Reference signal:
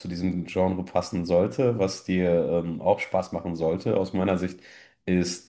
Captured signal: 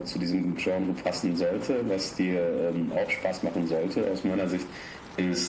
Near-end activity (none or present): none